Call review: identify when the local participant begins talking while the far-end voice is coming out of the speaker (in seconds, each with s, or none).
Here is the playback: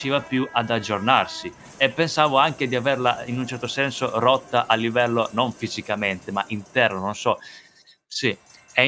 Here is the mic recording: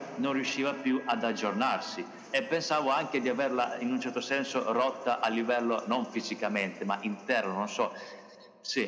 none